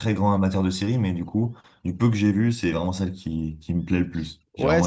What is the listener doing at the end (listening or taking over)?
taking over